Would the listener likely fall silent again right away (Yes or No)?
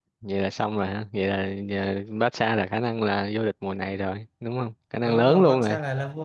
No